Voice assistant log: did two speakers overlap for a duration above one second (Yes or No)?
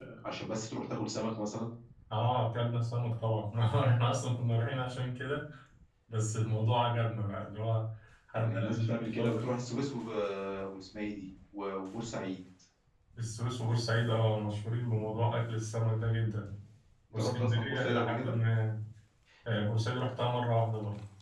Yes